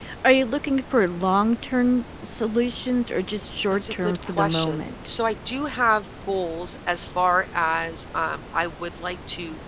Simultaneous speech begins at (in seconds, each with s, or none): 3.7 s